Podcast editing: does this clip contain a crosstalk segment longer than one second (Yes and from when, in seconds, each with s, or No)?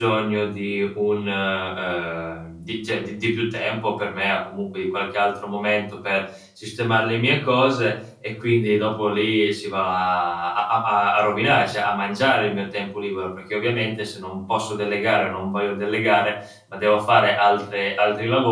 No